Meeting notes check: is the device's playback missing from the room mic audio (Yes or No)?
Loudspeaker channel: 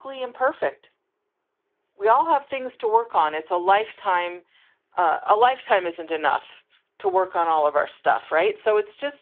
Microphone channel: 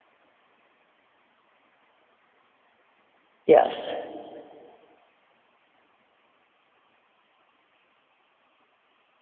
Yes